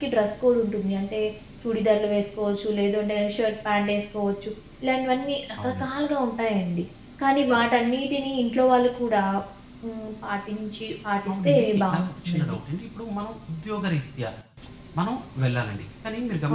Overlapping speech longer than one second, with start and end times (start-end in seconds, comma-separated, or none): 11.3-12.6